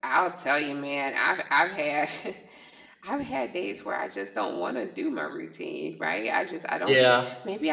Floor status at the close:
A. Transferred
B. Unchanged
B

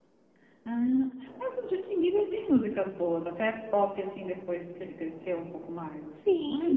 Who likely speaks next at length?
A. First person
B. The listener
B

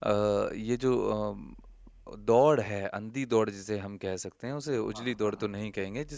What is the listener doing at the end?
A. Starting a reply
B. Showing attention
B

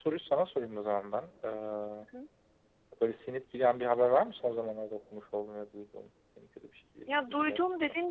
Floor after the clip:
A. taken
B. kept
A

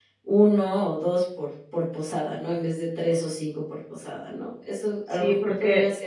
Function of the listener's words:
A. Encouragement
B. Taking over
B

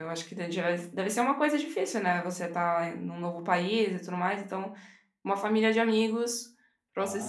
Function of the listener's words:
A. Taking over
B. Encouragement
A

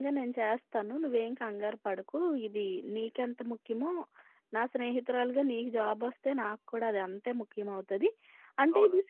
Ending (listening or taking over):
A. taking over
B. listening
B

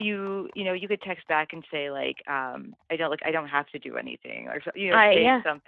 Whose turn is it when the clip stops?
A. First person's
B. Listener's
A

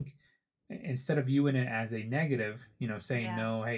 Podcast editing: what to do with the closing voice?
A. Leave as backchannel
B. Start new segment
A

